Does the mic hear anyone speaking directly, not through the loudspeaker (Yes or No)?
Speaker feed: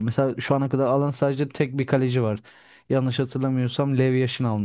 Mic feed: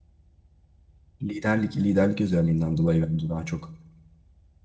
Yes